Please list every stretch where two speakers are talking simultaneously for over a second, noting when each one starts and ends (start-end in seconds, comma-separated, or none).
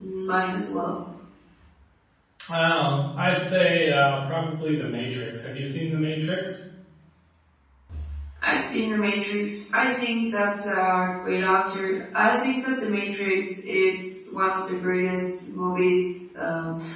none